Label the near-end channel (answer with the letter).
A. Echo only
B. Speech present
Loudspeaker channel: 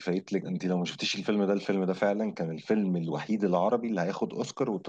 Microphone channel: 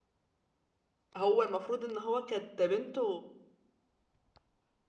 B